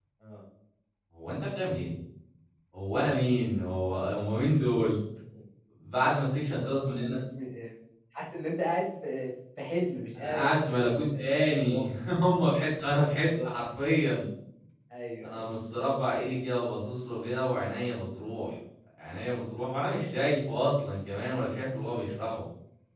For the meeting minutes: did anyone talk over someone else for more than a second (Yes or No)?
Yes